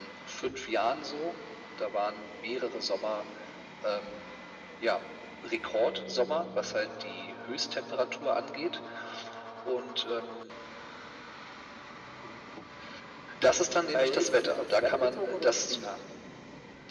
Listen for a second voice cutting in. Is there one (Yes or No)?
Yes